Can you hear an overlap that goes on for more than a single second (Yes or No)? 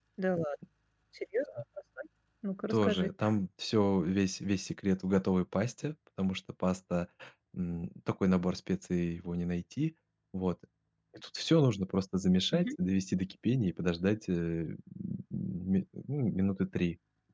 No